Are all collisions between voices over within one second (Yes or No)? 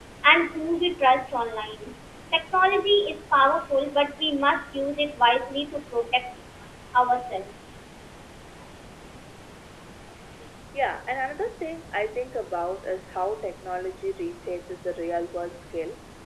Yes